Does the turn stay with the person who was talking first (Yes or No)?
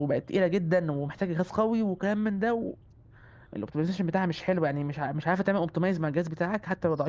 No